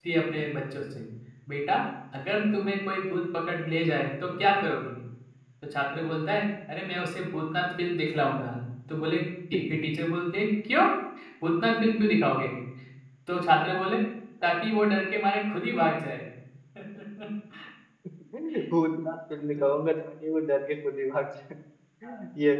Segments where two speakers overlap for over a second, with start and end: none

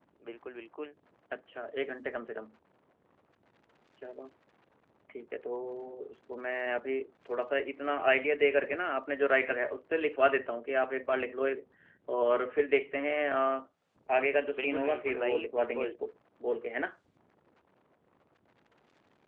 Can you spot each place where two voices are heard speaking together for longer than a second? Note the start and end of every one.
14.6-15.9

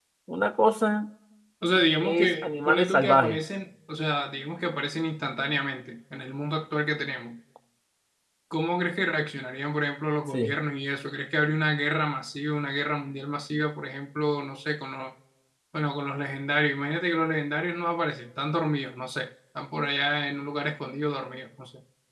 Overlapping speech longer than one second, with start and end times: 2.0-3.4

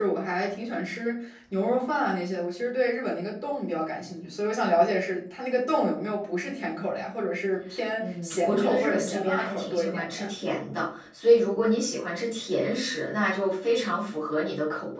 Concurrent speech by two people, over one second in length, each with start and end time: 8.0-10.3

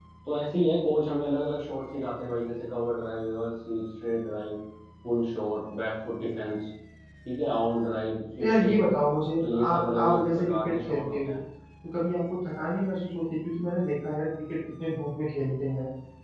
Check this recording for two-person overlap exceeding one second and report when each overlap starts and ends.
9.5-11.3

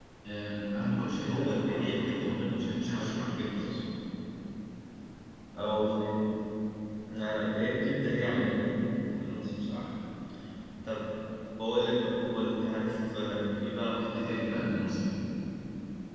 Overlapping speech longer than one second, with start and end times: 1.1-3.8

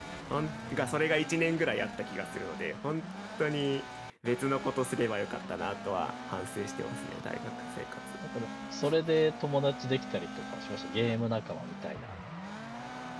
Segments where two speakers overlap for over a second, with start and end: none

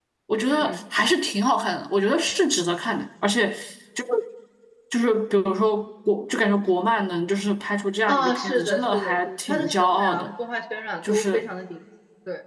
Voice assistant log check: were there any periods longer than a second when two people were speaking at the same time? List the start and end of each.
8.1-10.3

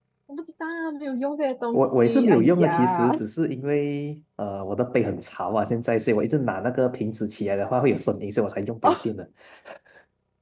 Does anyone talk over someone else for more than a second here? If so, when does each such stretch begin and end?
1.7-3.1

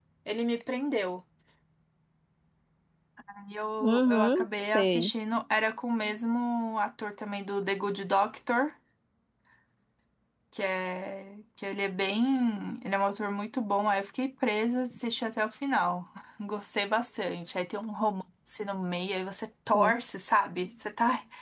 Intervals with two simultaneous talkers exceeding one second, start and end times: 3.8-5.1

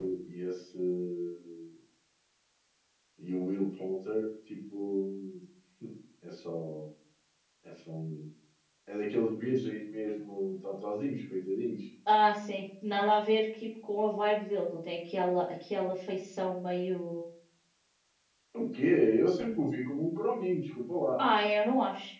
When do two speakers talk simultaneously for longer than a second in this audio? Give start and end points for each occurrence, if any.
none

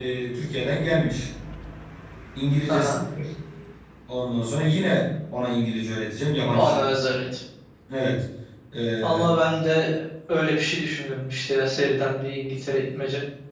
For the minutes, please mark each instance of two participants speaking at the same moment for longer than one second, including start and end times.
none

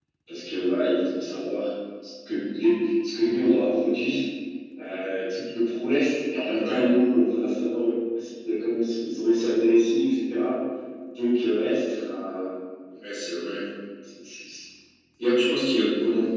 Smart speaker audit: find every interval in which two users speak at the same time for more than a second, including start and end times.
none

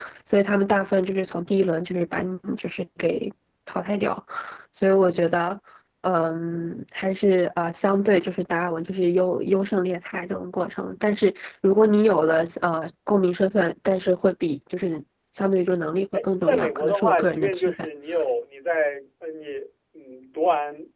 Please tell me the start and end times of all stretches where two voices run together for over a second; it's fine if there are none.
16.1-17.7

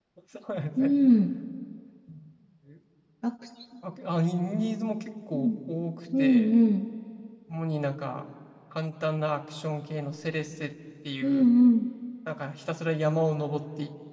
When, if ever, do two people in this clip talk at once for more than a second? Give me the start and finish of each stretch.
none

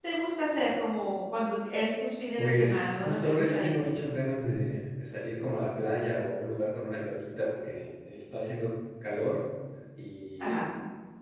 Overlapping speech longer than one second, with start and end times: 2.4-3.8

